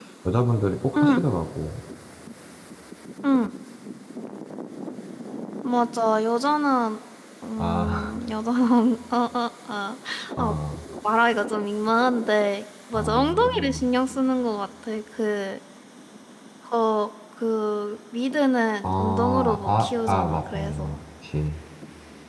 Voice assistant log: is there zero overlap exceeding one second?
No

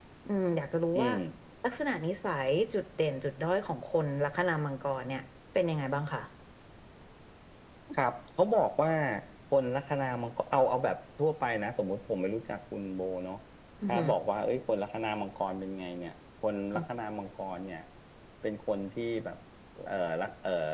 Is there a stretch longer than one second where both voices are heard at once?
No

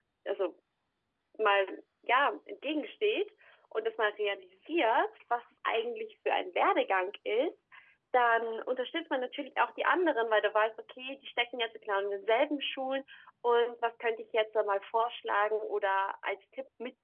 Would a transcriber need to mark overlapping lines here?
No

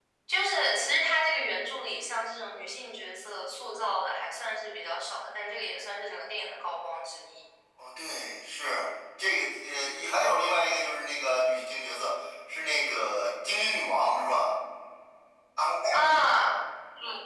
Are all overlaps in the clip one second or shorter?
Yes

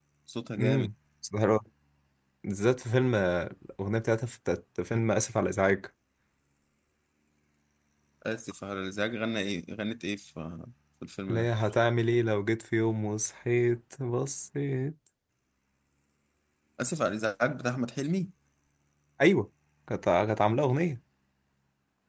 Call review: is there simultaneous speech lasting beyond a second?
No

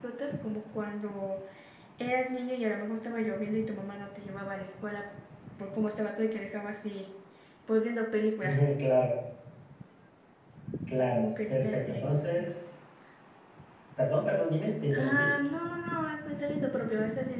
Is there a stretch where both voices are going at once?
Yes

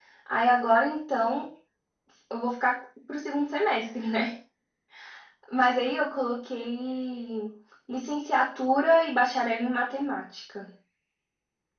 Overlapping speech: No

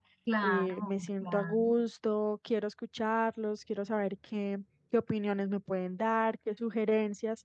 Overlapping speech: Yes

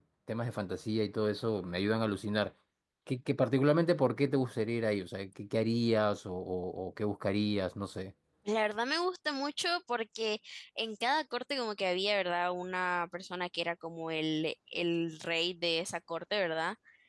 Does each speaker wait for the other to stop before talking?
Yes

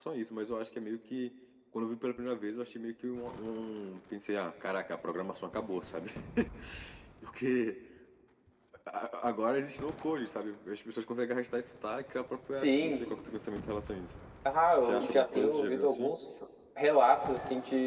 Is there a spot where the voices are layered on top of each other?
Yes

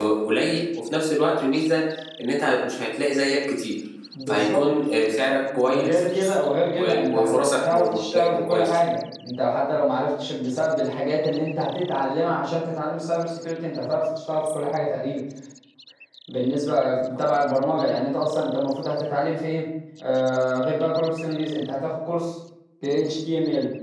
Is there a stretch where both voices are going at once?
Yes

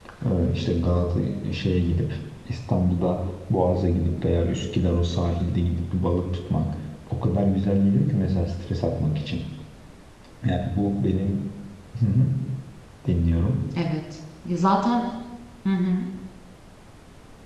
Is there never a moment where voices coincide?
Yes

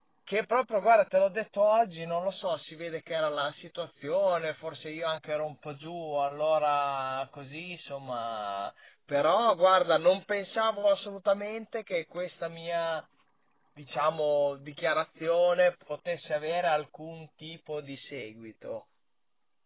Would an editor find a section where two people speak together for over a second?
No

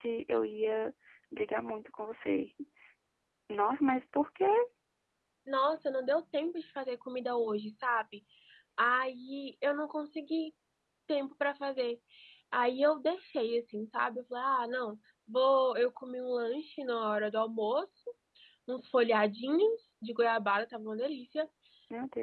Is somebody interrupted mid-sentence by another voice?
No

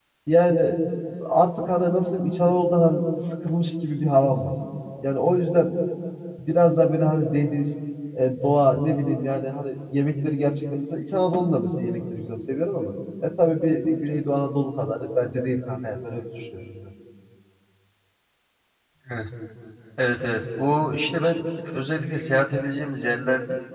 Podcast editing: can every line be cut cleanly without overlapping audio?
Yes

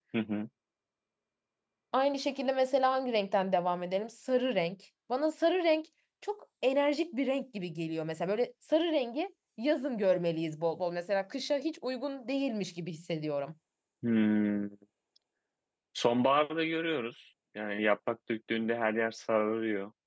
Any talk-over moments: No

